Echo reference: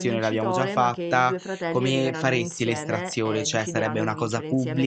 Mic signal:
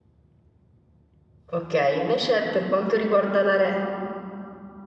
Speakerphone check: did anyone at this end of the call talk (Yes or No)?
Yes